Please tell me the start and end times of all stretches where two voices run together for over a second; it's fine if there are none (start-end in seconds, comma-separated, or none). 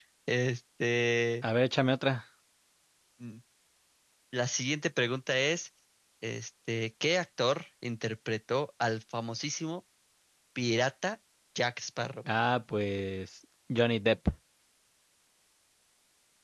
none